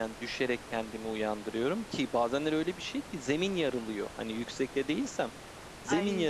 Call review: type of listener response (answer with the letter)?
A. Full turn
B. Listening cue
B